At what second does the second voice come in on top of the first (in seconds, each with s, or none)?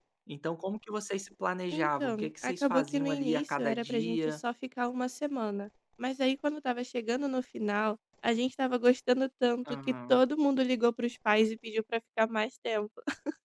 1.7 s